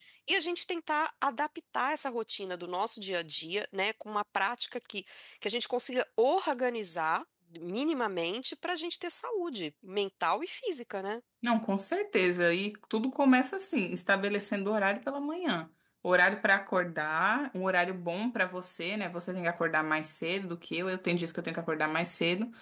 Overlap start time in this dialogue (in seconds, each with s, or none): none